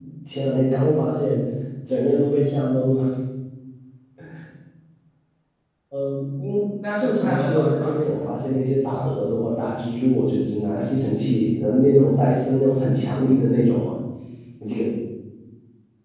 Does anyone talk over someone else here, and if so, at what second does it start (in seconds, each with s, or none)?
7.0 s